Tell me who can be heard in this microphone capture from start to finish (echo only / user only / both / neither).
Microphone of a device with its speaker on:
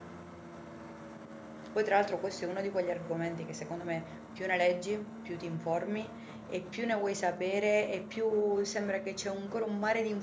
user only